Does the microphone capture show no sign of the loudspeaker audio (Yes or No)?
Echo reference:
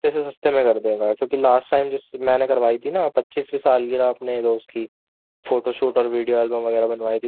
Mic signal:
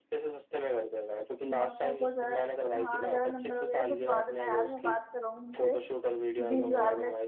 No